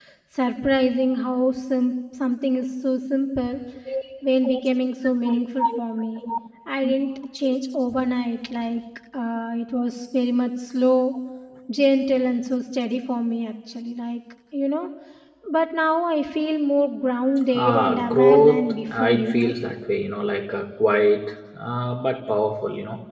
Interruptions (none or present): present